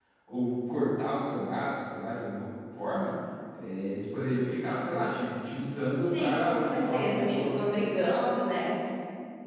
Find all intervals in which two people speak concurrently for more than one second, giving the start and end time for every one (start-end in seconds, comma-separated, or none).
6.1-7.6